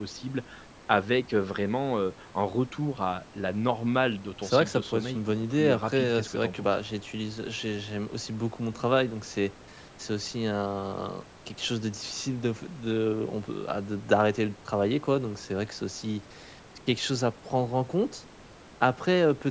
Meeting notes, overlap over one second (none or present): present